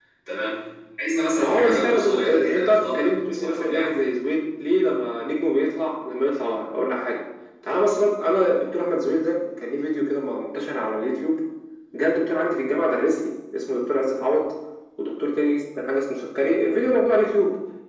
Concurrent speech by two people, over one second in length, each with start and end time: 1.4-4.0

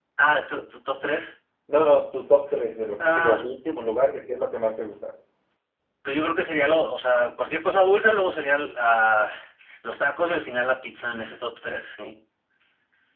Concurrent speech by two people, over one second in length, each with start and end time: none

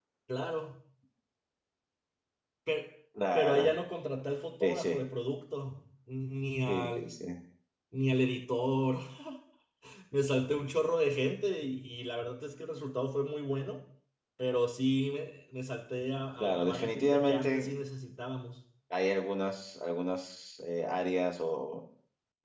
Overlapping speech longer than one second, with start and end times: 16.4-17.7

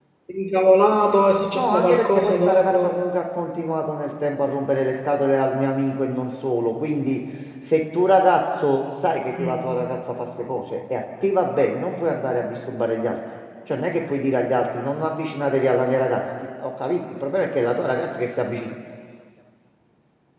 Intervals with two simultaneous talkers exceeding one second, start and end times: 1.5-3.0

